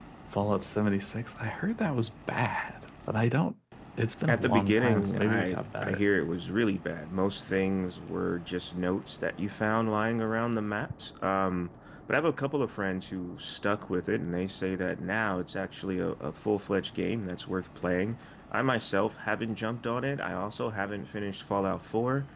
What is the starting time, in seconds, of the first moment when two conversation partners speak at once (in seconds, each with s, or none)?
4.3 s